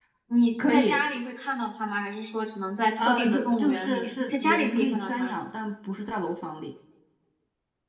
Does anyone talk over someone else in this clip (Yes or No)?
Yes